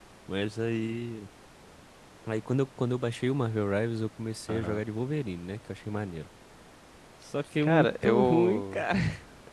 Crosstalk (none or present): present